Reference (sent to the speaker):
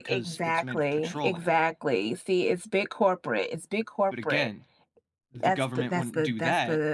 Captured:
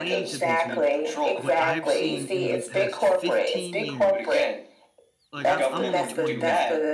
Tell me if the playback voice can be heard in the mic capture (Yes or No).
Yes